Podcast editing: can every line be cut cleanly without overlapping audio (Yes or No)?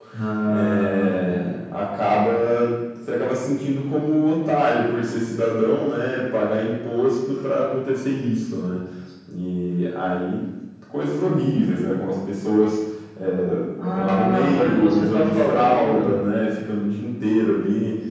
No